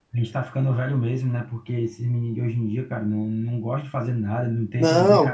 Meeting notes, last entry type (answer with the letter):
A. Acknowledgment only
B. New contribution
A